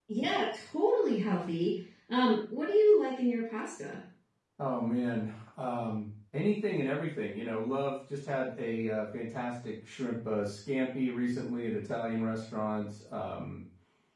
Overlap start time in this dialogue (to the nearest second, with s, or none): none